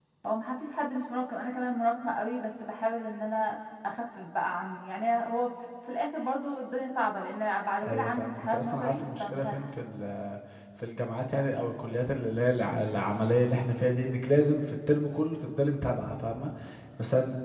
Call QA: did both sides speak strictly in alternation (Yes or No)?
No